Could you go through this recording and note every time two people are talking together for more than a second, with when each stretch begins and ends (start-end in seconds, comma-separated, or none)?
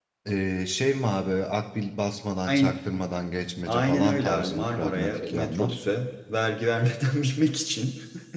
3.7-5.8